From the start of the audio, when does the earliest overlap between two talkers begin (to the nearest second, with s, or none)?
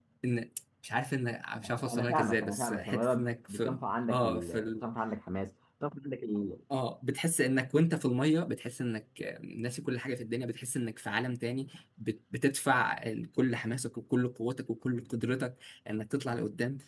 2 s